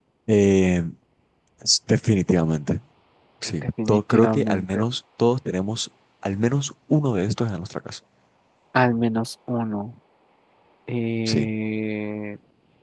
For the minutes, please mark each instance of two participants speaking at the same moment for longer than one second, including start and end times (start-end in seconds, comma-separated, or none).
3.6-4.8